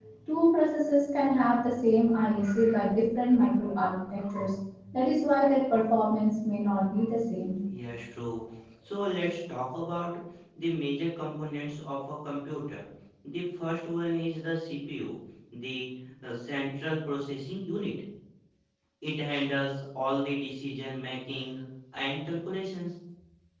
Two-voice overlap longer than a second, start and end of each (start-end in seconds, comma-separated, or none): none